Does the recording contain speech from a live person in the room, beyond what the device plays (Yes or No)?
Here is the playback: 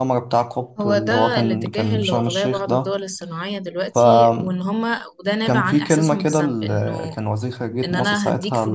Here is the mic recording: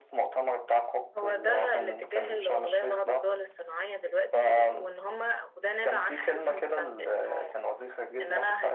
No